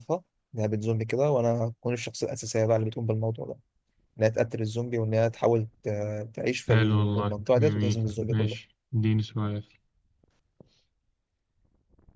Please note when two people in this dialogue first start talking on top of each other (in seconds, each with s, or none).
6.7 s